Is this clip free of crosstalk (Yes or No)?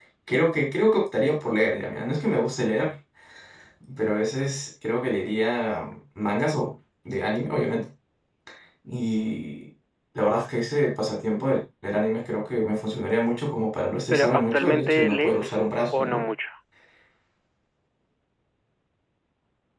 No